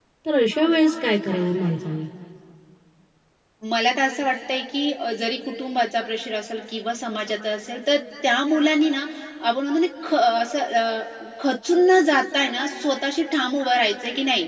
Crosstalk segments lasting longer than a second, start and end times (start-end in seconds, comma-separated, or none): none